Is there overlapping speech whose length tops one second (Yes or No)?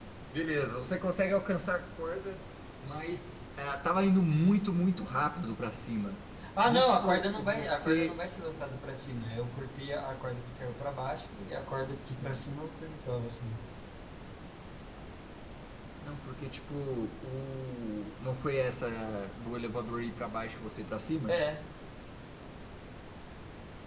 Yes